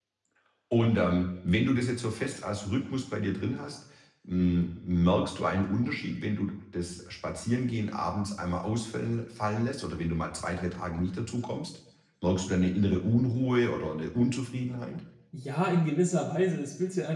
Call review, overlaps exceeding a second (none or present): none